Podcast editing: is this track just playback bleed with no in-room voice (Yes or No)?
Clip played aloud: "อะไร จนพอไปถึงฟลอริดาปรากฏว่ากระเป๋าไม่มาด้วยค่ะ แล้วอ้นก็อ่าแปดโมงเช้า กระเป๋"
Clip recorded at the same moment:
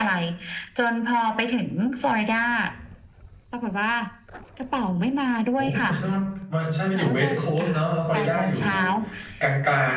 No